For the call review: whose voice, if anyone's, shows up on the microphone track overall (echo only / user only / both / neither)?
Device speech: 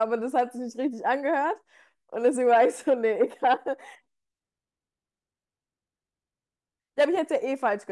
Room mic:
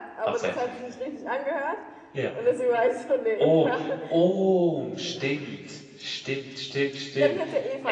both